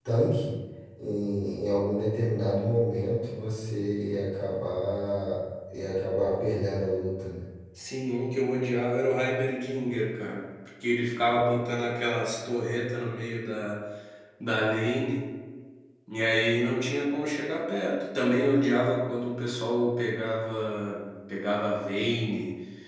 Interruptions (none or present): none